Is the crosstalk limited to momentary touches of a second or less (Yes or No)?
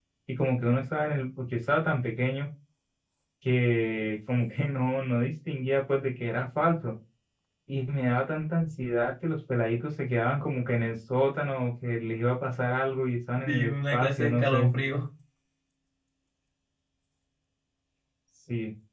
No